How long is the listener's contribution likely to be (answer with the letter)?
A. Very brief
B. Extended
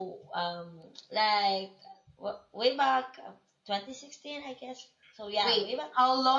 B